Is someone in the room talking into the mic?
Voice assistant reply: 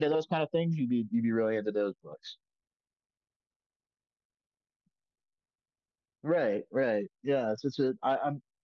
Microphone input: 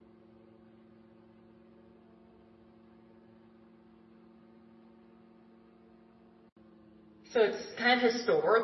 Yes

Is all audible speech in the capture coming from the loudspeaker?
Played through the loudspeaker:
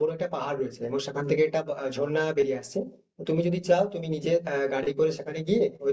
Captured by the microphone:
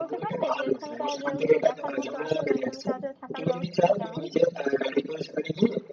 No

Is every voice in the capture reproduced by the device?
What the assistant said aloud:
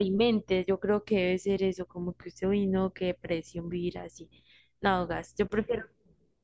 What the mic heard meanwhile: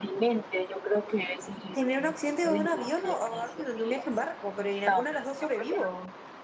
No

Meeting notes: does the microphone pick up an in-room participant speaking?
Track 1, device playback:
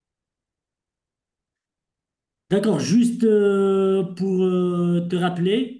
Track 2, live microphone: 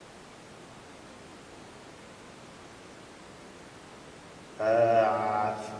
Yes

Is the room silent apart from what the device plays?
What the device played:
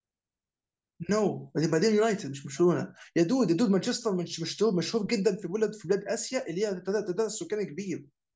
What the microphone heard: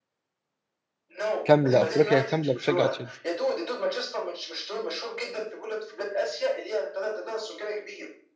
No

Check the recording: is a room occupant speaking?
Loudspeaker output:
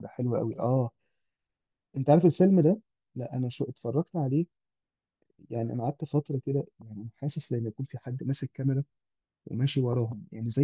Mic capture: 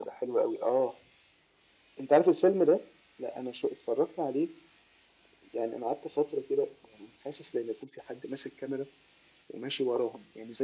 No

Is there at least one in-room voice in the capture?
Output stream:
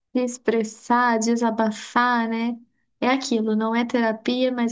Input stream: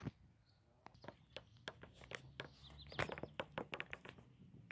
No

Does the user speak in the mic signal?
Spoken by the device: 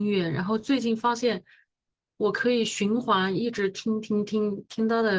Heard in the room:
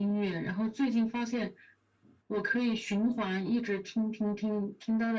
No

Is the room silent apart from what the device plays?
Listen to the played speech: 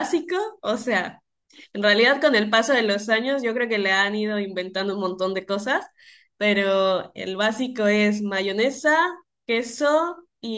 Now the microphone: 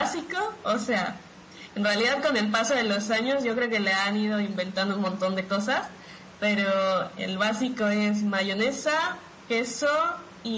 Yes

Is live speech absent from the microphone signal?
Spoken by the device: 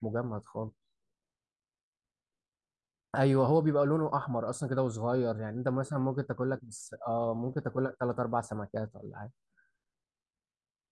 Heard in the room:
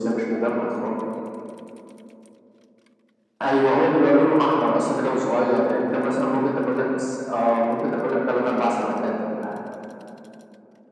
Yes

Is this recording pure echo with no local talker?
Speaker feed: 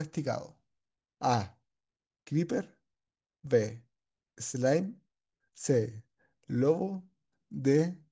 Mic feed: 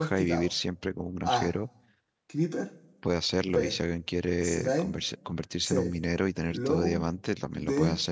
No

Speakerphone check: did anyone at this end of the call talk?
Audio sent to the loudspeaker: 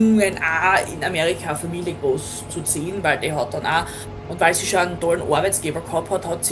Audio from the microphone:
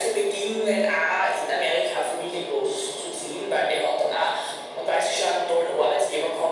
No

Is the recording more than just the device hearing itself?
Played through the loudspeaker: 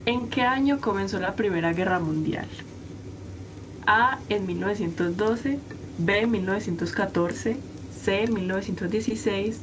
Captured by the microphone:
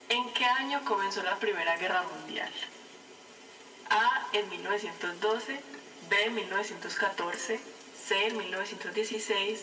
No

